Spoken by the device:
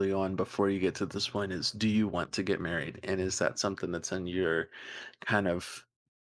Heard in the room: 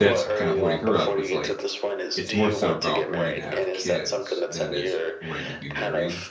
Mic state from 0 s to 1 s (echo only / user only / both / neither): both